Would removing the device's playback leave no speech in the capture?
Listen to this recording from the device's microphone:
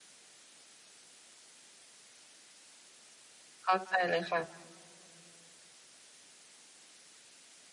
No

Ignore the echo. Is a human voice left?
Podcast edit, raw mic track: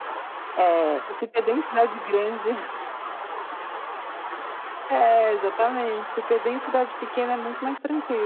No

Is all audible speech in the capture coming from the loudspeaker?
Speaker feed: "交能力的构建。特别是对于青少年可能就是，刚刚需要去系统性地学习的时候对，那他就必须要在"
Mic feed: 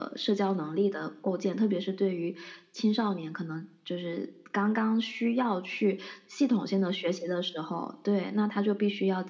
Yes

